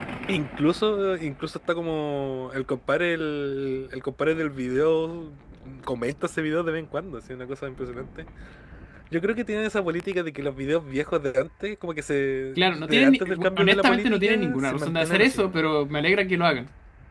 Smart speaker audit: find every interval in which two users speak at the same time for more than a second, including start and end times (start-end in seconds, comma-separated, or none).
12.6-15.6